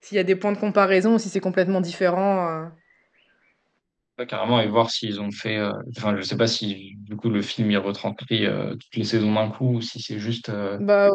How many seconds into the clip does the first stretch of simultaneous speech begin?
none

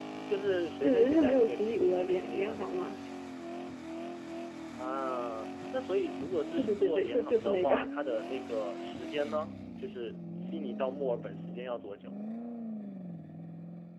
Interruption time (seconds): 0.8 s

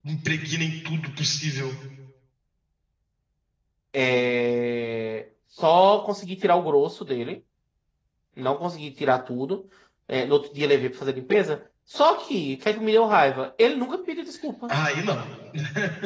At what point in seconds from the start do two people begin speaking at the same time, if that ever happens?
none

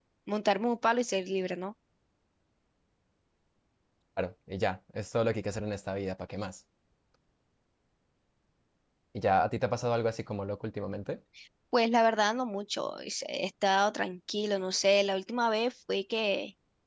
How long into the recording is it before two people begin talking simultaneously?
none

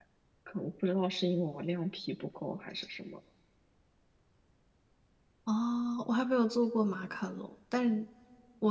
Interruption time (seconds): none

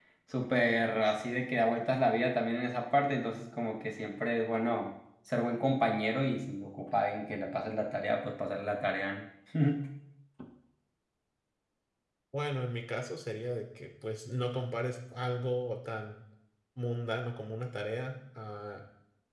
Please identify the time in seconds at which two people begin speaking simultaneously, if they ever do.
none

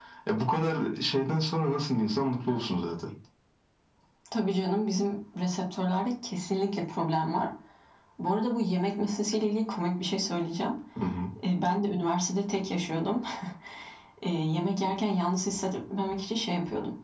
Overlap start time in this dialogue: none

